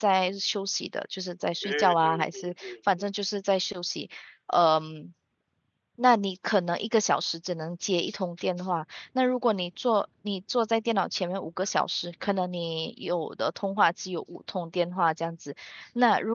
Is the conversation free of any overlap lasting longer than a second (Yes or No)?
No